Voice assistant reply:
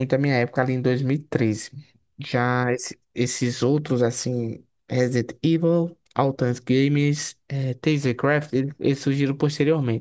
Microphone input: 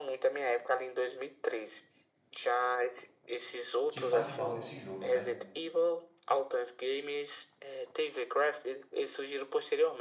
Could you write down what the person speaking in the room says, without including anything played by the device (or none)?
que fale mal desse jogo, né?